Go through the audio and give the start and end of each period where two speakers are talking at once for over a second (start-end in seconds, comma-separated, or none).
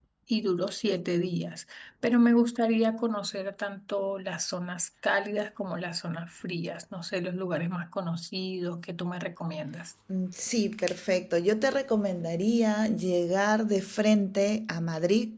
none